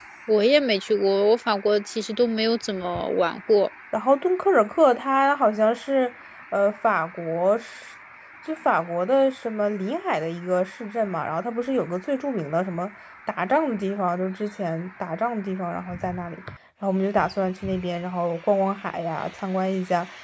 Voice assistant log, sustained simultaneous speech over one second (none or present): none